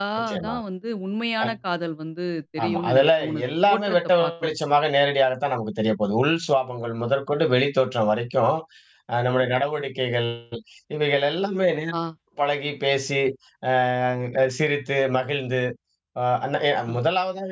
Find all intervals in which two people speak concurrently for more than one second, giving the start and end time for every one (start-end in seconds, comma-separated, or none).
2.6-4.5